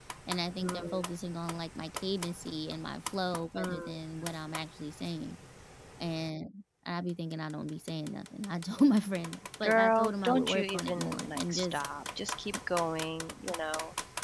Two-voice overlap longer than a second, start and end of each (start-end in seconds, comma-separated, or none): 9.6-11.8